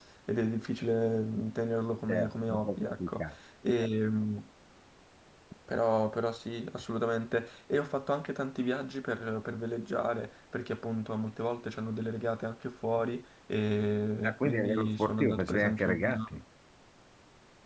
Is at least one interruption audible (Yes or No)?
Yes